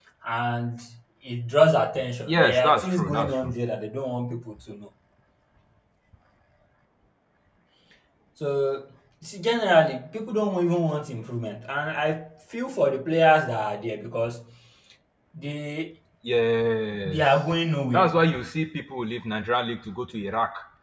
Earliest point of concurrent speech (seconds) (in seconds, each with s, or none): 2.3 s